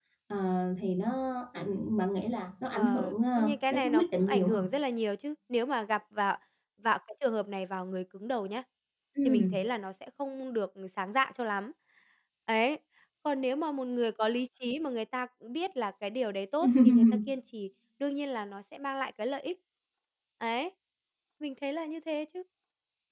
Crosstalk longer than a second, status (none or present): present